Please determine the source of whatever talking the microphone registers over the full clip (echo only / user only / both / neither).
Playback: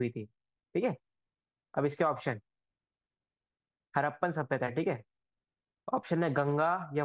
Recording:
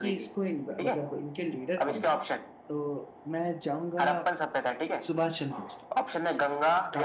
both